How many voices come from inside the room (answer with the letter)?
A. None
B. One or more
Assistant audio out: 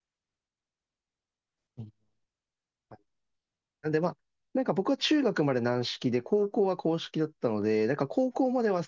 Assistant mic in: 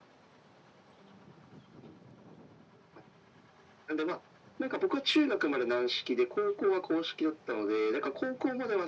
A